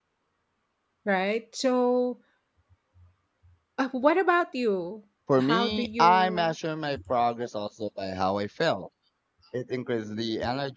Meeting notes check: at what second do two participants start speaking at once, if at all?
5.3 s

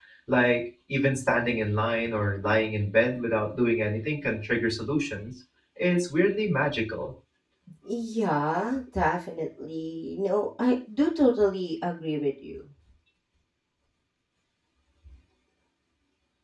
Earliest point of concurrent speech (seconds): none

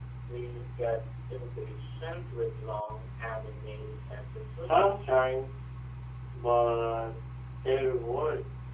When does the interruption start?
3.7 s

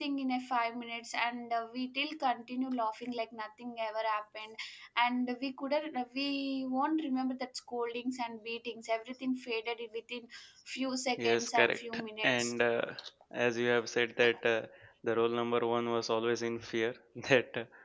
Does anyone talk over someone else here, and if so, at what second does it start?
11.2 s

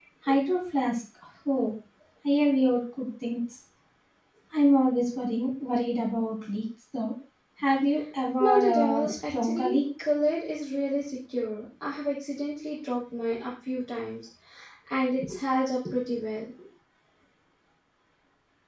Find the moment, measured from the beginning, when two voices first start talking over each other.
8.4 s

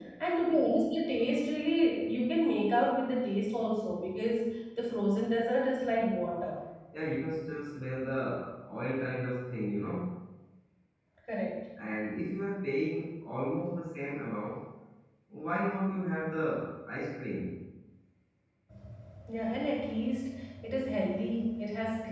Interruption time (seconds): none

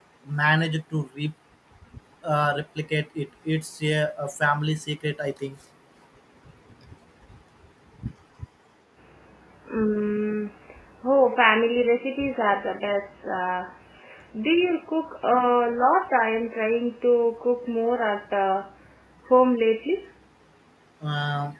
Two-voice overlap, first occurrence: none

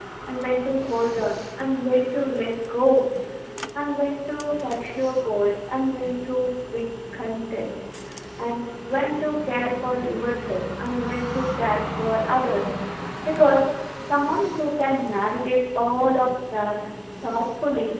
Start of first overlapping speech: none

